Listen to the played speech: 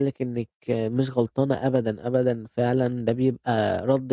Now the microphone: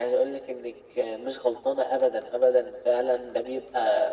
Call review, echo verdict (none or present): present